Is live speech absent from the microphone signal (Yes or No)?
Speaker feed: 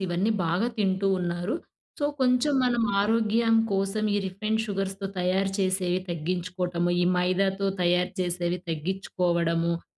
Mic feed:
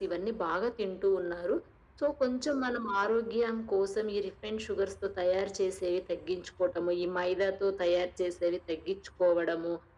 Yes